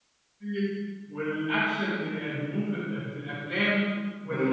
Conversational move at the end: listening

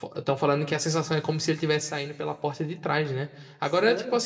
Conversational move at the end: listening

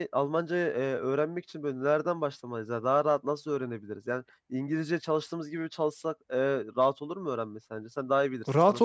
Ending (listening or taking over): taking over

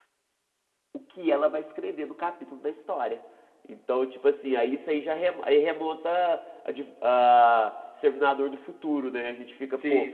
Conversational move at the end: listening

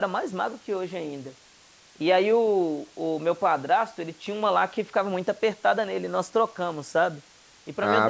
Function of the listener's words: listening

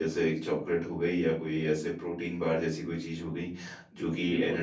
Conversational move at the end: listening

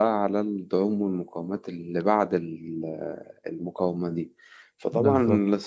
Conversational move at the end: listening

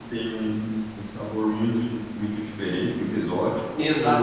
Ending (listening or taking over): taking over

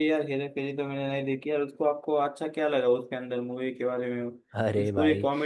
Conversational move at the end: taking over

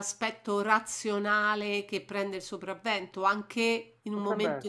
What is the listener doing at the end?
listening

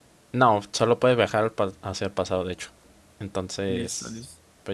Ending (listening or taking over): taking over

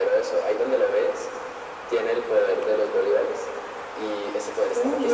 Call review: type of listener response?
taking over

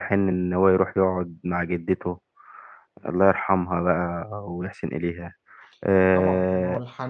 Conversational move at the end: taking over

